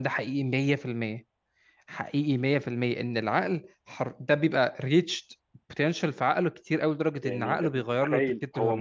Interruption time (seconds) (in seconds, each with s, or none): 7.2 s